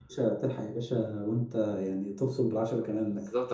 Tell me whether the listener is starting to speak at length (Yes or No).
Yes